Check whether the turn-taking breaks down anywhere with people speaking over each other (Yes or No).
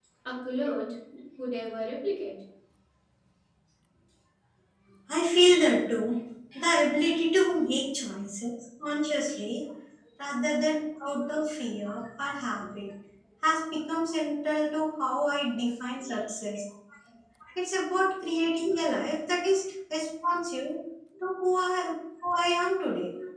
No